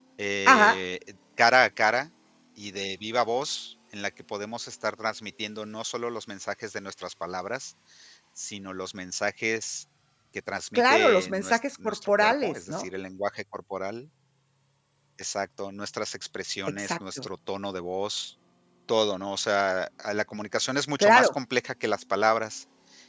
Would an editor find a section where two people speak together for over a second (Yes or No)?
Yes